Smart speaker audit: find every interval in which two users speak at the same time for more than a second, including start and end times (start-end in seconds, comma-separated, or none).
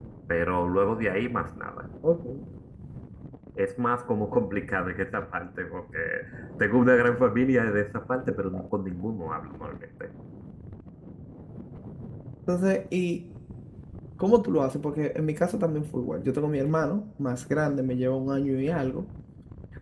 none